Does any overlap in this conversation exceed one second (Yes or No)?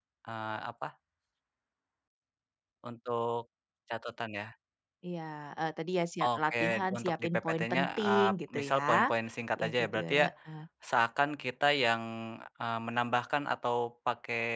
Yes